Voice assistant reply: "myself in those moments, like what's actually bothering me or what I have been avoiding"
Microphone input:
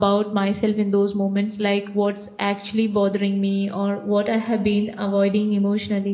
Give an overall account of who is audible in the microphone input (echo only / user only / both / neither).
echo only